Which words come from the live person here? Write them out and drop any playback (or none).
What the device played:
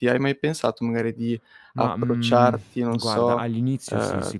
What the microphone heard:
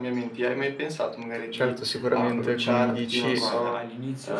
Certo, sicuramente come mi dici, ehm,